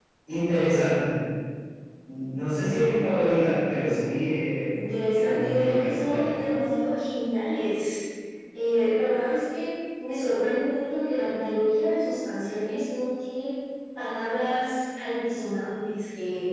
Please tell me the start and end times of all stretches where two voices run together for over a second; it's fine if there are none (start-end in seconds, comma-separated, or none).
5.1-6.3